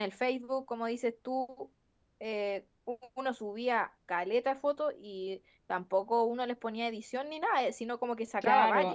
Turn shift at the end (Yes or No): Yes